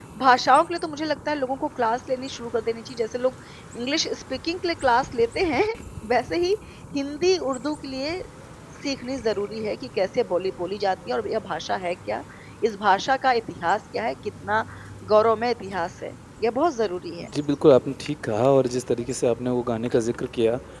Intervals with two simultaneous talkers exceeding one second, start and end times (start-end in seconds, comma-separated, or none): none